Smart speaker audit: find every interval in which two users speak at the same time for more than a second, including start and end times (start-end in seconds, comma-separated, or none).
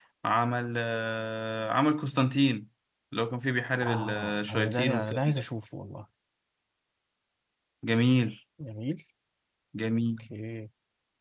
3.9-5.5